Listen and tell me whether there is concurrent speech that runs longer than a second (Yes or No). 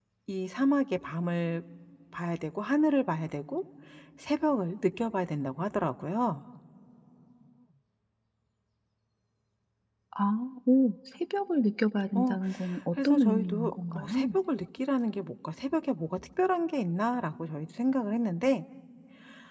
Yes